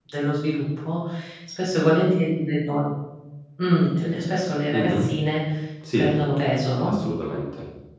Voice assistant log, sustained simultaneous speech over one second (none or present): none